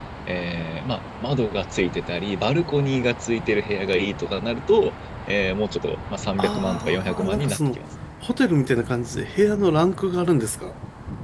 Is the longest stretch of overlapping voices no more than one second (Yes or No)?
No